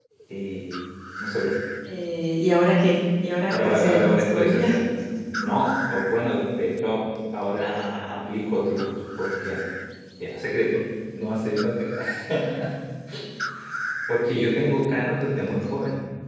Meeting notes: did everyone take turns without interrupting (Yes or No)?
No